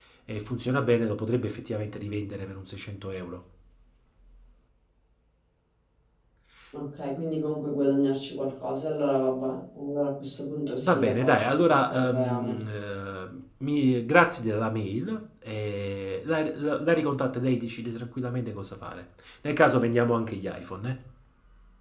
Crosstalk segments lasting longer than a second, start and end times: 10.8-12.6

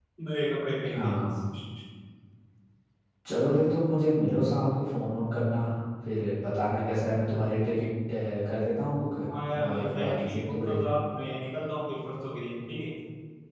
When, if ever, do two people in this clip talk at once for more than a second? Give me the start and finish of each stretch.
9.5-10.9

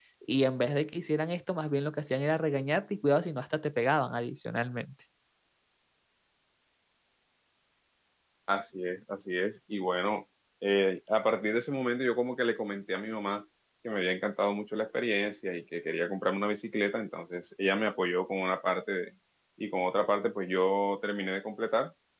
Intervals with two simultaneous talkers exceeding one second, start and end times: none

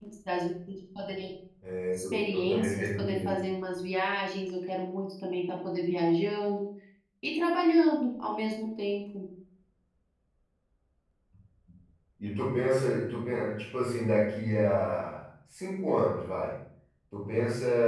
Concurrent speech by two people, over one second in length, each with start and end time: 1.9-3.4

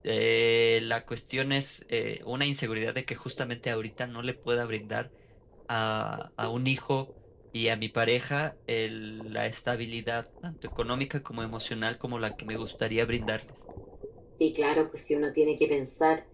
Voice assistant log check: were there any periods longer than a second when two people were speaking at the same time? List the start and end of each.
none

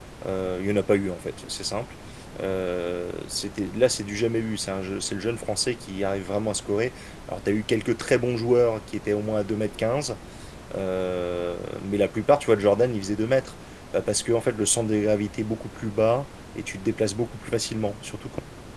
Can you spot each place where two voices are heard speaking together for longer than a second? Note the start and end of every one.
none

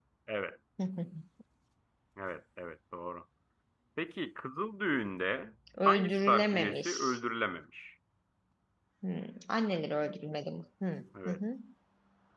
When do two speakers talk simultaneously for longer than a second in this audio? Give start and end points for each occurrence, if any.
5.8-7.2

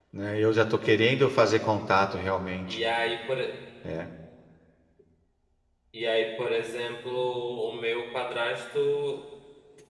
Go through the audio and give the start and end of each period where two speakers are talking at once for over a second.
none

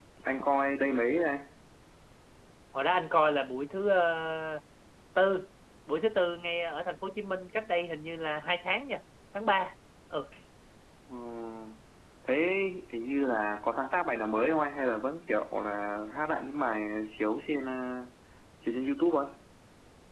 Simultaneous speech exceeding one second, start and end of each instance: none

